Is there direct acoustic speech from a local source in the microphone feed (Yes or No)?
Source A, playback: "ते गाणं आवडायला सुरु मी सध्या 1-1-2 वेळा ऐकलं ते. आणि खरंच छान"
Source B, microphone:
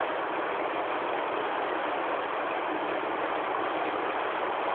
No